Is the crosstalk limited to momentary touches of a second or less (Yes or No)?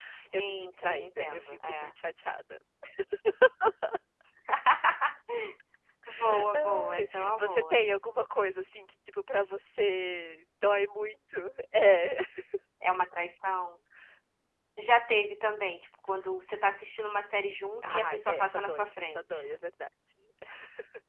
No